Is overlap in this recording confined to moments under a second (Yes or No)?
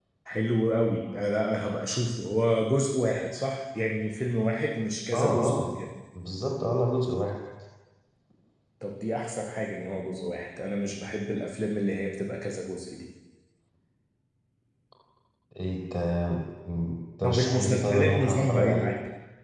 No